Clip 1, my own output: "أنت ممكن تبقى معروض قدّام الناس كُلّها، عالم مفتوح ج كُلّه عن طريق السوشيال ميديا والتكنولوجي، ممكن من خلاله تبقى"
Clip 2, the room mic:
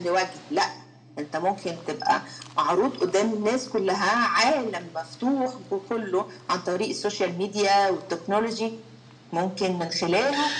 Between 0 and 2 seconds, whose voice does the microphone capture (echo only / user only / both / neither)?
echo only